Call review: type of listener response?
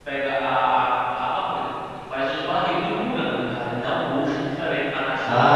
taking over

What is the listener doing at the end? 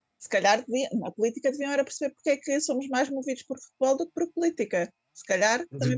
taking over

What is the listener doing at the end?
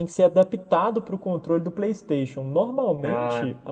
listening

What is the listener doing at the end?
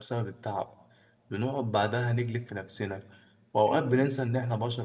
listening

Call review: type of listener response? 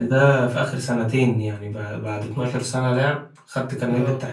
listening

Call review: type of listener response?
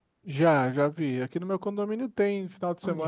taking over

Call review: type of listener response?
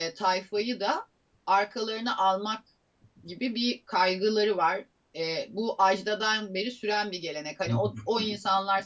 listening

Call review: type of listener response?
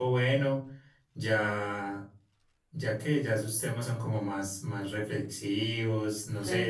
taking over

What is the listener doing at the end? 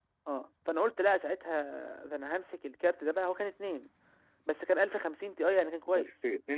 taking over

